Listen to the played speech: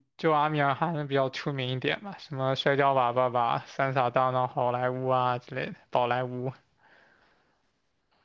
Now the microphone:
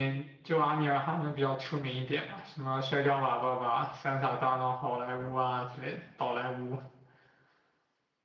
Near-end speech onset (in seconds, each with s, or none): none